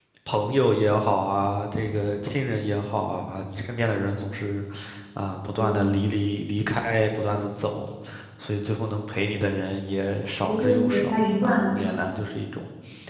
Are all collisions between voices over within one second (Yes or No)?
No